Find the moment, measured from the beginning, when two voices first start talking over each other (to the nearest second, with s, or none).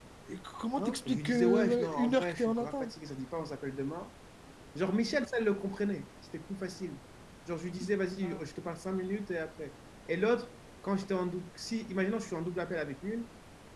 1 s